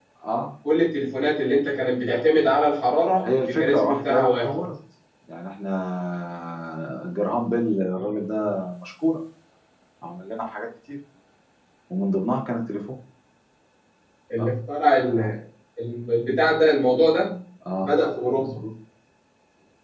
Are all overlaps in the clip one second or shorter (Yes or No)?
No